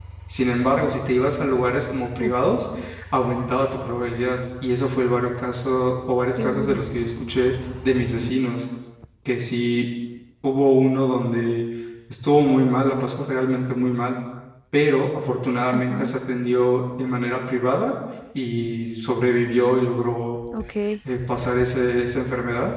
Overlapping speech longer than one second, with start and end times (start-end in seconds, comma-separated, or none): none